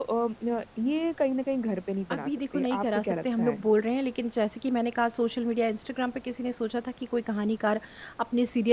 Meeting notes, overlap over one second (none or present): present